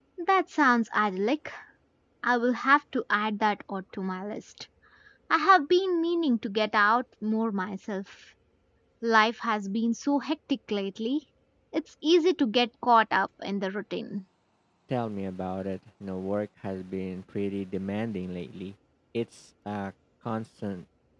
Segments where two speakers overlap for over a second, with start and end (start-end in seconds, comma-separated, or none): none